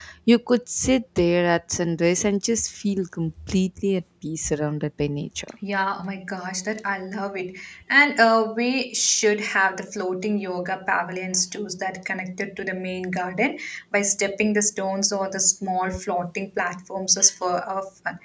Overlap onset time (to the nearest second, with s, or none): none